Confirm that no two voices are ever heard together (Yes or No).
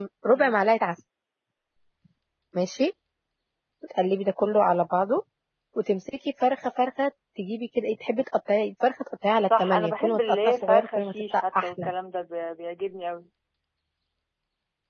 No